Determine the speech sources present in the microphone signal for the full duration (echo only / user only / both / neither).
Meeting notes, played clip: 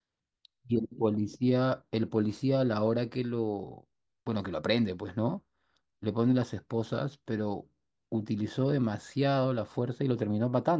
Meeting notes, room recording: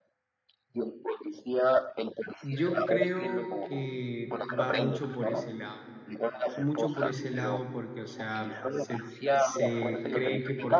both